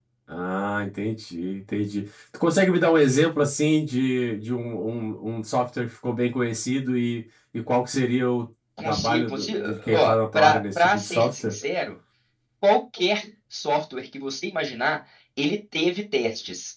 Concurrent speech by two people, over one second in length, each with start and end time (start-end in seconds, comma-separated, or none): 8.8-11.5